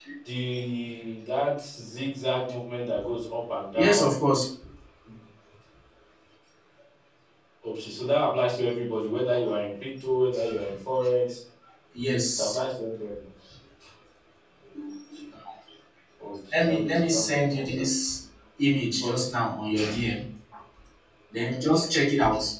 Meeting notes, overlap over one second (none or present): present